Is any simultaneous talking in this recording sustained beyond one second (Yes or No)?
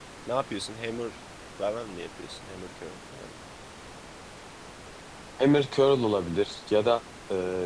No